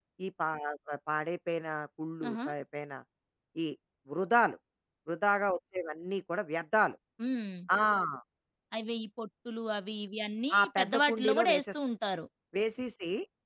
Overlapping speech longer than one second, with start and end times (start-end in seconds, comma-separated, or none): 10.6-11.8